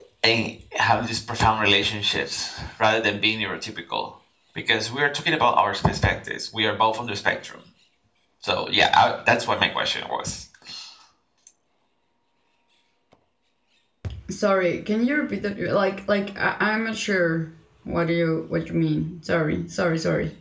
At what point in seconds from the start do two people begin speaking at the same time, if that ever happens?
none

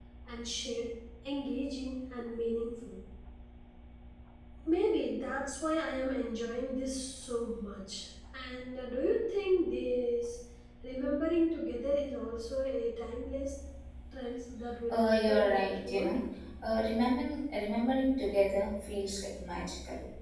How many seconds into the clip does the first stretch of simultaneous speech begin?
14.9 s

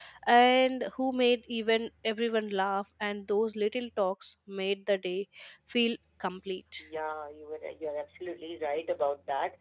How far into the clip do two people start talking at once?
none

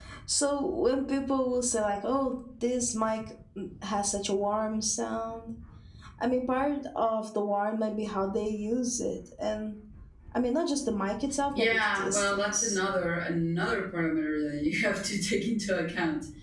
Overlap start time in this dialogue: 11.6 s

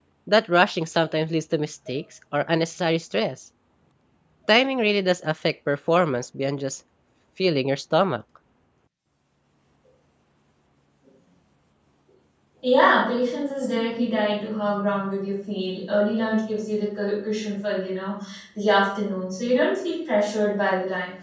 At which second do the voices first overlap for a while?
none

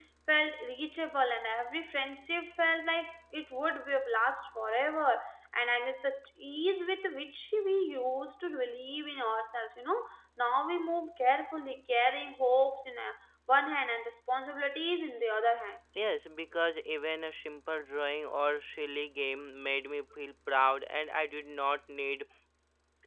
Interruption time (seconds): none

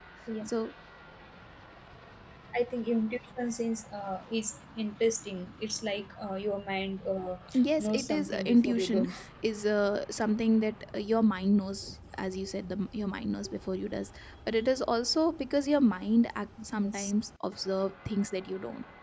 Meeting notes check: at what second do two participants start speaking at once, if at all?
7.8 s

